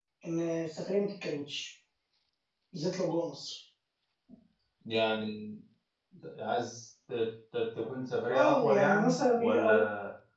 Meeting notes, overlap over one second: present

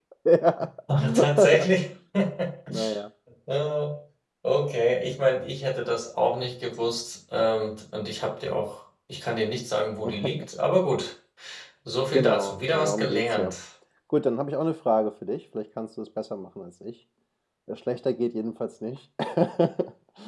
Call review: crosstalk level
present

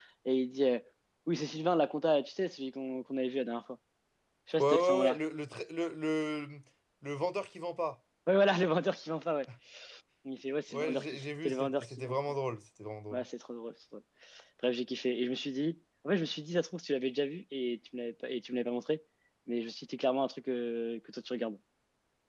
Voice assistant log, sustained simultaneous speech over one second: present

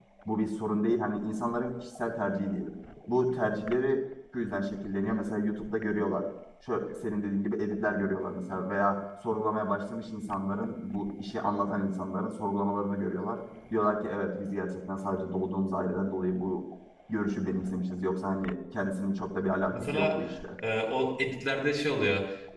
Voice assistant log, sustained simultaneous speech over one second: none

